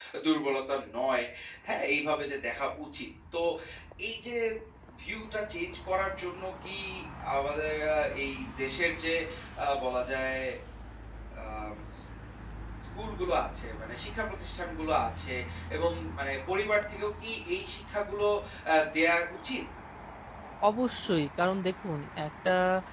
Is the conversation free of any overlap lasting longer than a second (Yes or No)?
Yes